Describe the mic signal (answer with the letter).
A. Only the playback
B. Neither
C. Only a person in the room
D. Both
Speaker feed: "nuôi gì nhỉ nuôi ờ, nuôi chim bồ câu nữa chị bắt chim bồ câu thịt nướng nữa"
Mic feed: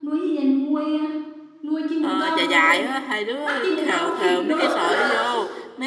D